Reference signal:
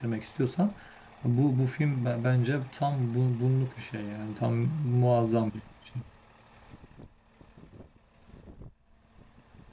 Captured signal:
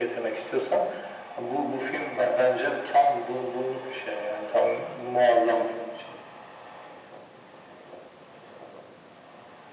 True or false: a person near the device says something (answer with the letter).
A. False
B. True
A